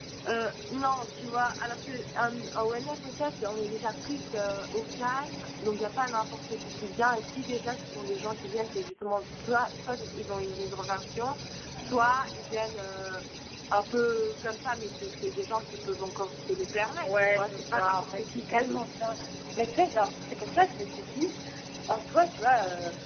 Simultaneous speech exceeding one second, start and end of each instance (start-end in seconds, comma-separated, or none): 17.0-18.8